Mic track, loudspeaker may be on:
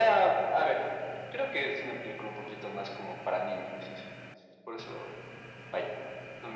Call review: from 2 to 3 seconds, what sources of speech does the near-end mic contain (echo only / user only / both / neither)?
echo only